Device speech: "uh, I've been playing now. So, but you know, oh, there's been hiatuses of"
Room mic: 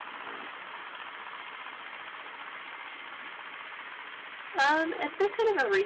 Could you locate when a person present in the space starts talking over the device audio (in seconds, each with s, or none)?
4.5 s